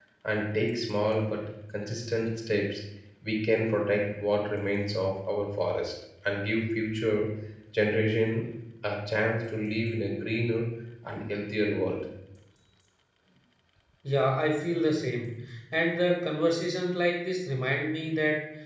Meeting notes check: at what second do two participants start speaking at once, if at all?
none

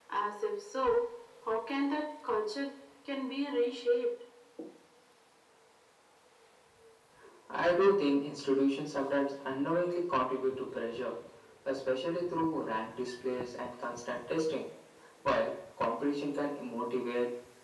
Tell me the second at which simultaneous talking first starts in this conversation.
none

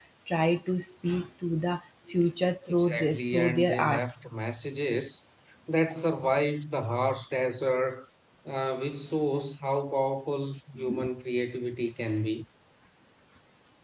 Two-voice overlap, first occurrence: 3 s

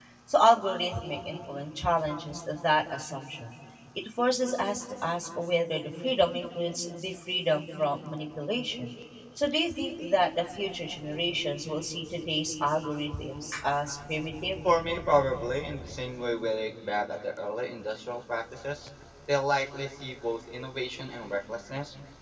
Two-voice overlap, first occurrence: none

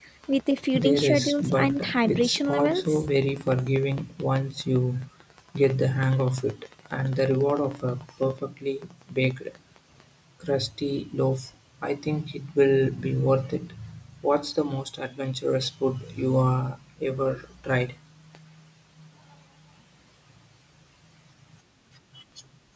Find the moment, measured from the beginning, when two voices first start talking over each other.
1 s

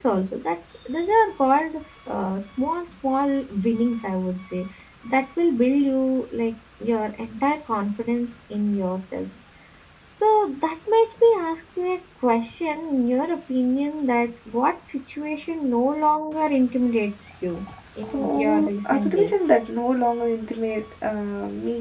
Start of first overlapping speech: 18 s

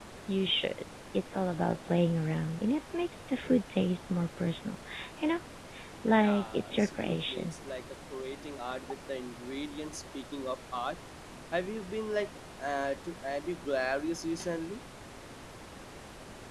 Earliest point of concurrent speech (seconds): 6 s

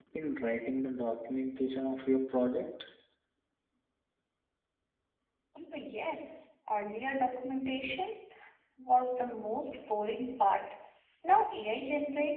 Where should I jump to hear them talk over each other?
none

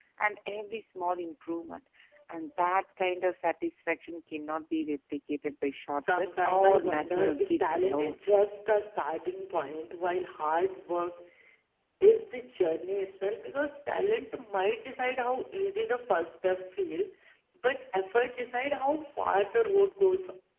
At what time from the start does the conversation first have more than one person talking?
6 s

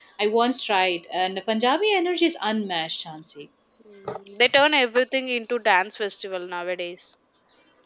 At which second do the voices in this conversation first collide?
none

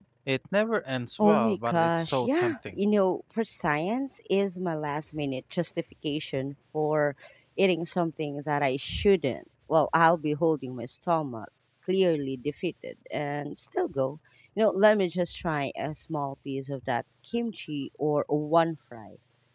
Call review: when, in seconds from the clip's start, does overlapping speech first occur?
1 s

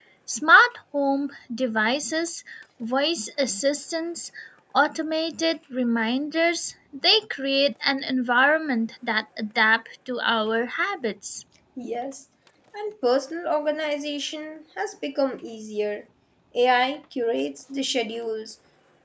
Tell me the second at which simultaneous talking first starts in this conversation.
none

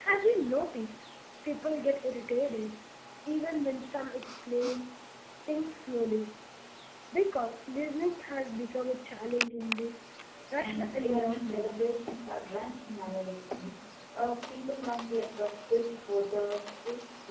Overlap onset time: 11 s

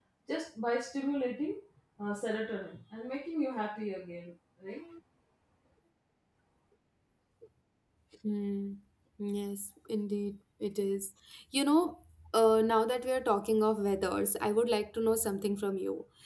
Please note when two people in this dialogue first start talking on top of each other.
none

